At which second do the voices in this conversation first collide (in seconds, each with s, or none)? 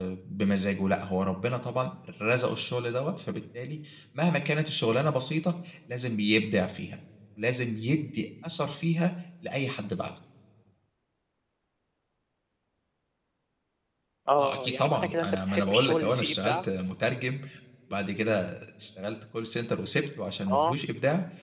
14.4 s